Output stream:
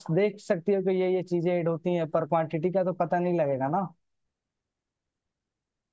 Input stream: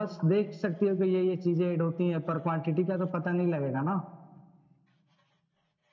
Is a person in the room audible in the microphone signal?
No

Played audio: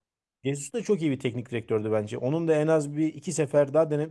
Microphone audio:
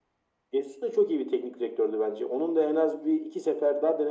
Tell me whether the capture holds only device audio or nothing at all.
Yes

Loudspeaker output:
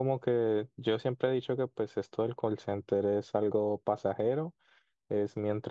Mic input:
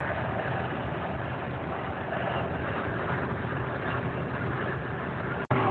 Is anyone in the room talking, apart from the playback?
No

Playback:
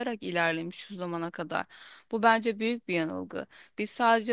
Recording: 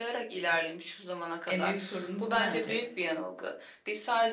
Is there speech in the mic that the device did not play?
Yes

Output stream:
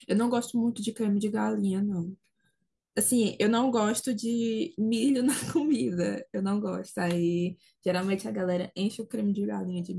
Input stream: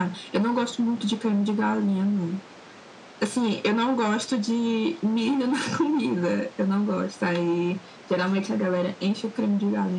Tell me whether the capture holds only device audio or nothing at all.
Yes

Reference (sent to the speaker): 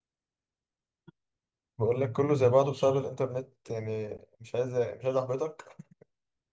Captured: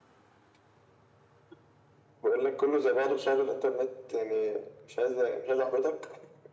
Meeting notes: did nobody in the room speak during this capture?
Yes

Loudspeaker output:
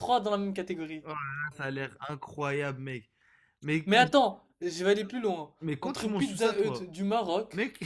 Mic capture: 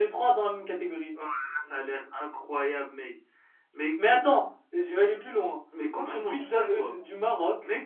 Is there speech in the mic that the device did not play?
No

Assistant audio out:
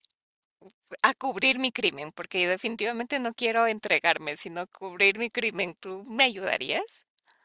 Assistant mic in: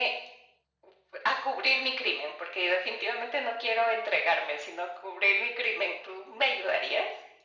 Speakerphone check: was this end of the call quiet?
Yes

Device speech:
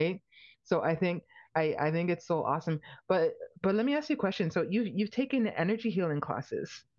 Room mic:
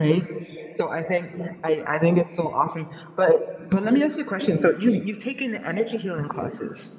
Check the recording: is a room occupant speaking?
No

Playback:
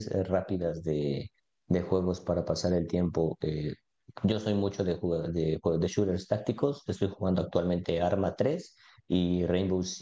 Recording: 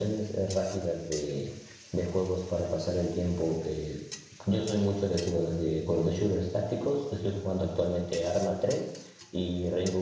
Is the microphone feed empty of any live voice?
Yes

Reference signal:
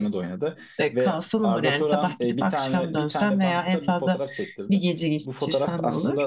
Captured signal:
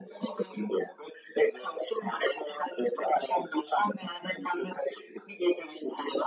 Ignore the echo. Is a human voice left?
No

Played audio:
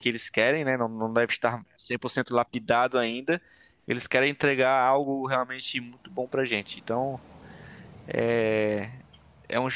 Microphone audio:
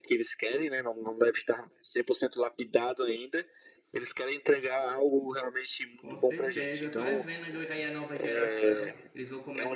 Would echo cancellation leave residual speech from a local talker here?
Yes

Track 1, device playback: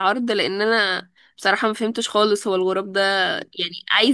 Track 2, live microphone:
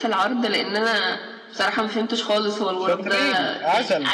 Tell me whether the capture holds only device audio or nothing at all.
No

